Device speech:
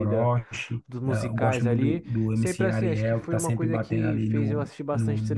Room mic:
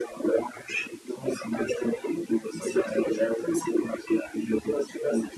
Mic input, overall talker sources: echo only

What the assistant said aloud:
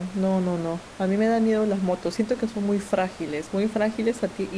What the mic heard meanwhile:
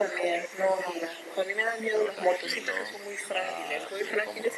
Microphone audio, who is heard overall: both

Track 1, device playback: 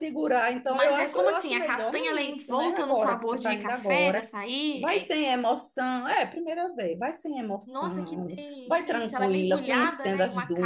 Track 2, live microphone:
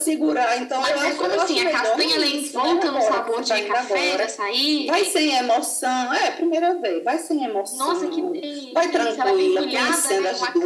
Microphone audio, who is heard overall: echo only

